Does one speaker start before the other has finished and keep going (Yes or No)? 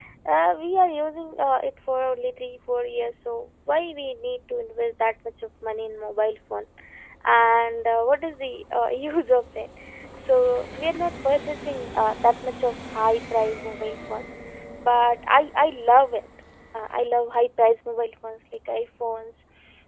No